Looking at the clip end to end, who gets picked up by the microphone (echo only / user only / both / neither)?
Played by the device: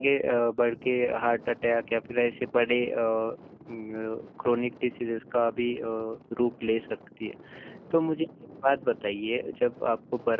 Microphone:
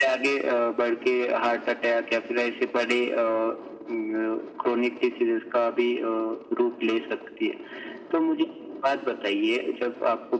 echo only